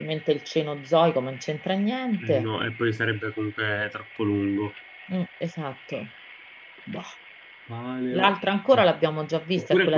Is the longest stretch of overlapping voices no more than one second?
Yes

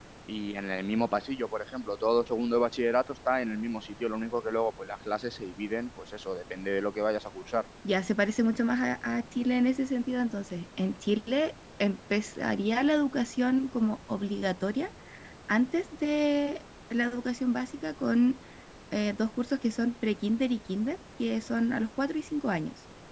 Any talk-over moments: No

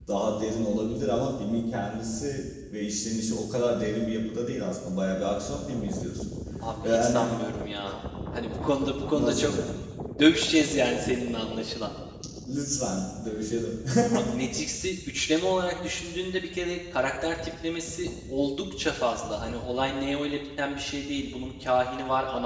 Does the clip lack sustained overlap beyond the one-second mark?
Yes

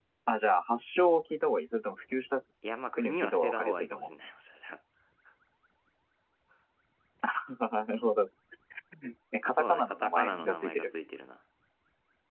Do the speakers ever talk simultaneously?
Yes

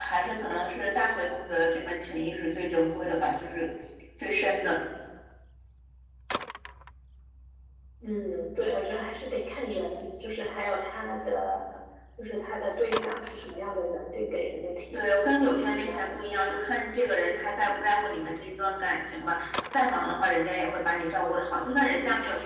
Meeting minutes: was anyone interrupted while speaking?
Yes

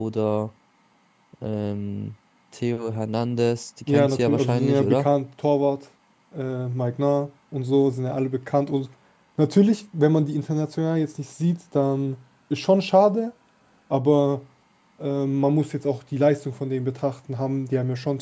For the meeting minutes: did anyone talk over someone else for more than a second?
Yes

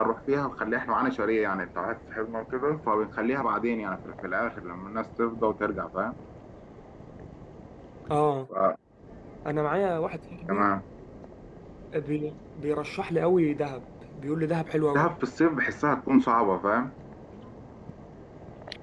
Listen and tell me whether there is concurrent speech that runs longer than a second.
No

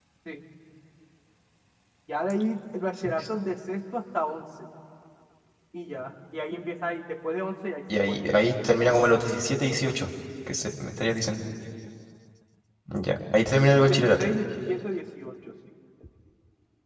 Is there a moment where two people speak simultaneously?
Yes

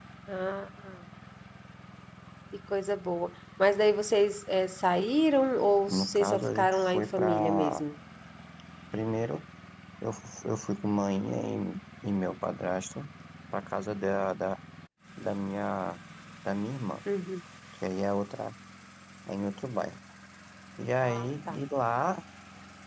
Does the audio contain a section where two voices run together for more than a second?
Yes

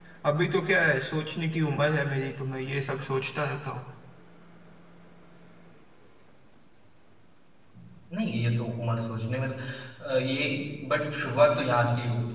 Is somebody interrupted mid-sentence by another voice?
No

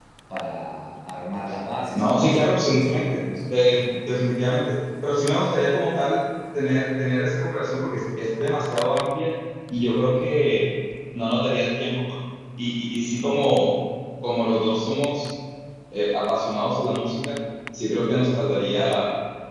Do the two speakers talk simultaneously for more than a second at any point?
Yes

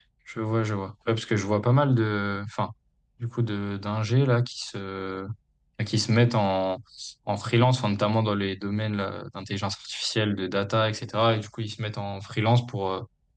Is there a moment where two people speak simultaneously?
No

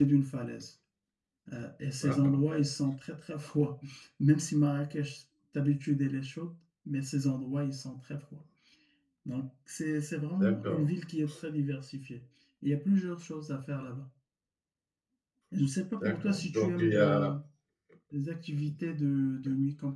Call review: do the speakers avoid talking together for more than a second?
No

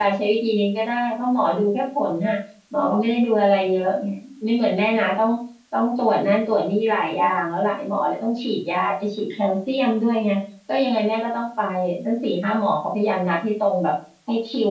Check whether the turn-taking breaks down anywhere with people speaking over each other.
No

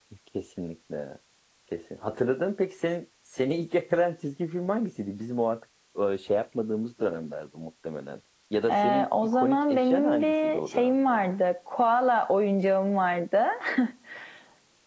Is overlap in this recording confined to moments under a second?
No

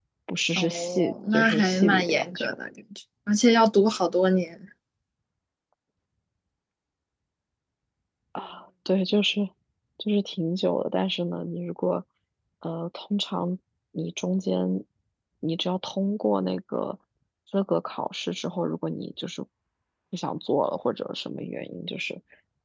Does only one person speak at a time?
No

